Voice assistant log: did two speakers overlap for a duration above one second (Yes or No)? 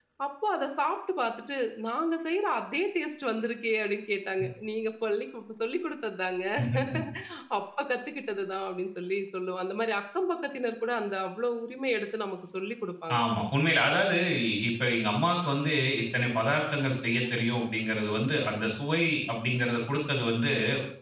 No